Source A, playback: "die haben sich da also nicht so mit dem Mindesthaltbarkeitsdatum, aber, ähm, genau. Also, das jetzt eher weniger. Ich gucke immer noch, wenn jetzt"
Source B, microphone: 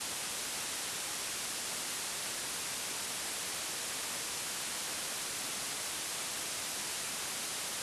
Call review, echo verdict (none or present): none